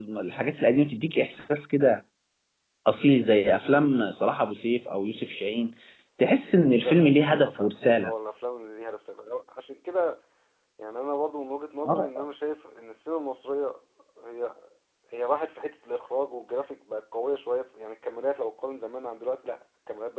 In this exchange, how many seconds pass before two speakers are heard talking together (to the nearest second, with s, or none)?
7 s